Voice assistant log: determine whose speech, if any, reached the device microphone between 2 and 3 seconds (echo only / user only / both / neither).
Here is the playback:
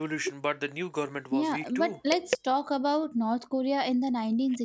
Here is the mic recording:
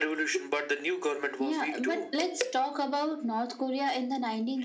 echo only